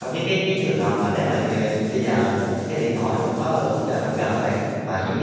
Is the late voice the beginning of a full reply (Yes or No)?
No